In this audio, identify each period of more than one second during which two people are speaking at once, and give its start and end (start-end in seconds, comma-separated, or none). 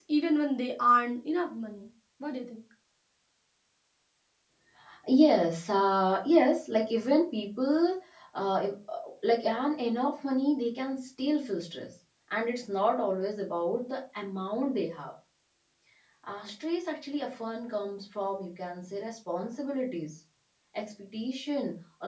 none